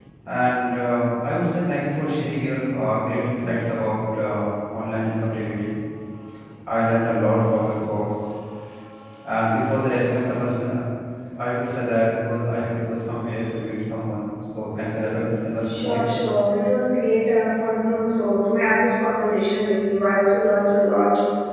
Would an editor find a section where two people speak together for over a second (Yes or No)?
No